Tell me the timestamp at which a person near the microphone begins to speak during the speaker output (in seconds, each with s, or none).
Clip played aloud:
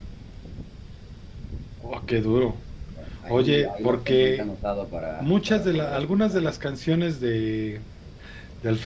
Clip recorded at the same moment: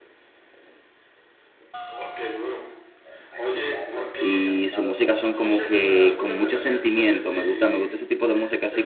4.2 s